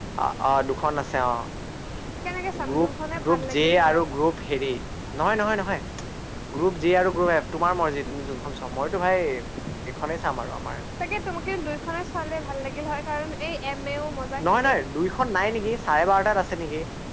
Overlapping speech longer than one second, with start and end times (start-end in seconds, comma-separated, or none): 2.7-4.0